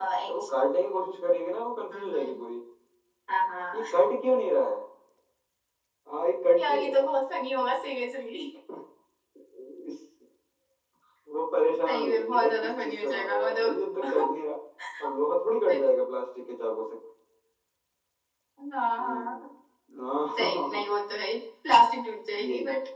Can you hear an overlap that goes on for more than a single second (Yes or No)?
Yes